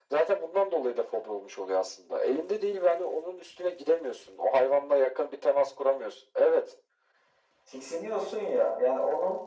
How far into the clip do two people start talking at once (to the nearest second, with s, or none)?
none